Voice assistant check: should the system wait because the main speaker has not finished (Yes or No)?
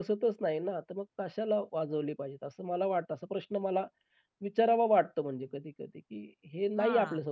Yes